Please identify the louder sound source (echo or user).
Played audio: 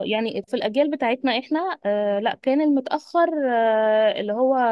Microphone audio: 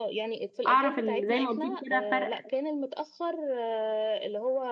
user